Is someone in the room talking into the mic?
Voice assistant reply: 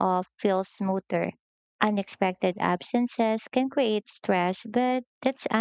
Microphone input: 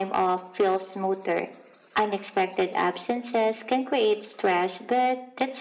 No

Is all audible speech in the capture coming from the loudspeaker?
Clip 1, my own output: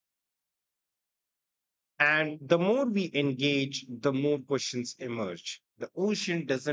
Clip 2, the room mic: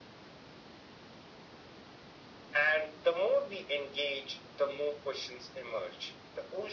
Yes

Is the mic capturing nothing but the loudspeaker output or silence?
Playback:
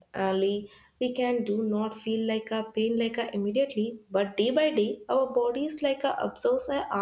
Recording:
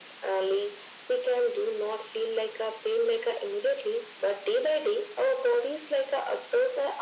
Yes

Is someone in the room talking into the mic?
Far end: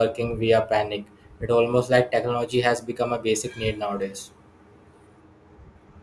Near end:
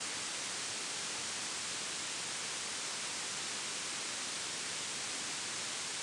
No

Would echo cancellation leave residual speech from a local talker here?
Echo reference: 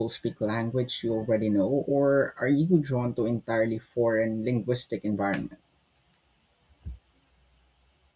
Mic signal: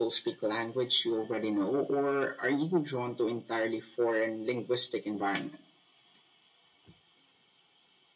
No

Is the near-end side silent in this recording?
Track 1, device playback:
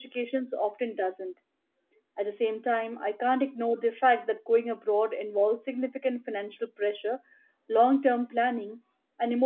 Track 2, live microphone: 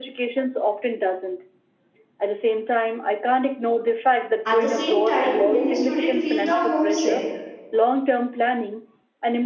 No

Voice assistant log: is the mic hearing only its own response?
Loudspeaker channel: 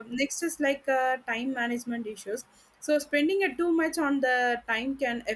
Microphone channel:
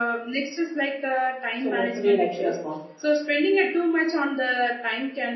No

